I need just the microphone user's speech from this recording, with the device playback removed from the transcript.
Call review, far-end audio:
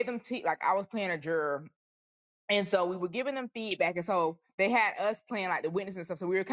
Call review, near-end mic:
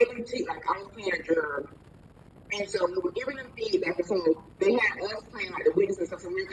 none

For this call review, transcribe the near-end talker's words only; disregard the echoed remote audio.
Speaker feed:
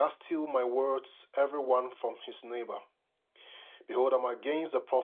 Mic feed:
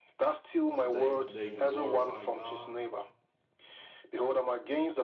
Uh, they they can glorify God.

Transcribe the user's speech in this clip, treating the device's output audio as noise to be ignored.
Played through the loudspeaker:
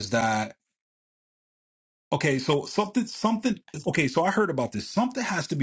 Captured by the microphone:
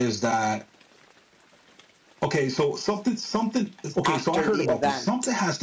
after the event

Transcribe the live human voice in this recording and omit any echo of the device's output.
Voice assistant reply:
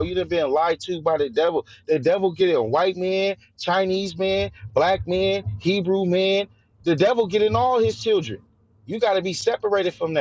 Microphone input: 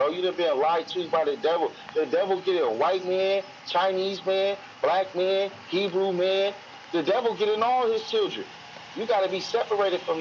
none

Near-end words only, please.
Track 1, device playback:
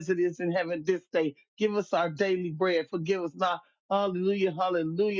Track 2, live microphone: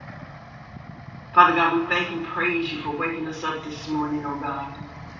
Father God, we thank and praise you for waking us up this morning, oh God.

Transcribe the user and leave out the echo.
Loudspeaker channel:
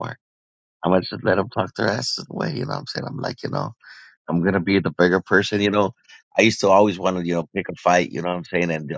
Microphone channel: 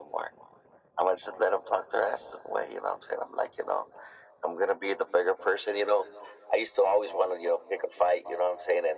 none

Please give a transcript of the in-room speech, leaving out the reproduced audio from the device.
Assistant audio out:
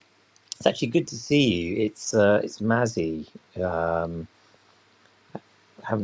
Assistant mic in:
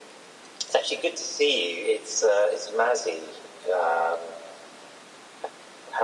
none

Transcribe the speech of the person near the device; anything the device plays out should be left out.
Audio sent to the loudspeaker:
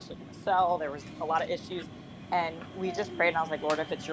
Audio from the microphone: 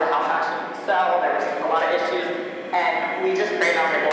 none

